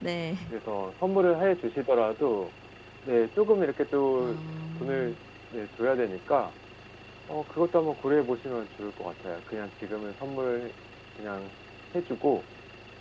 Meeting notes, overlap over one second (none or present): none